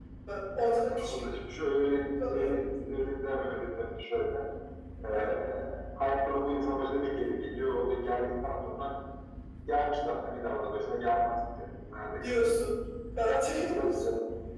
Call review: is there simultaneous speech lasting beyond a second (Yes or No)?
No